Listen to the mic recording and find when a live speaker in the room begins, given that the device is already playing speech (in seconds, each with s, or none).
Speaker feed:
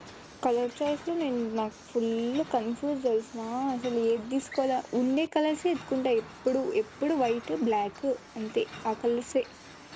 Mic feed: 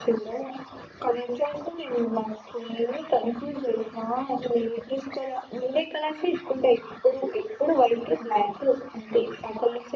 none